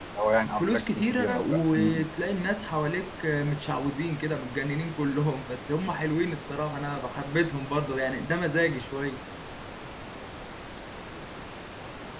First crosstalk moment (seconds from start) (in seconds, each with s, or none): 0.5 s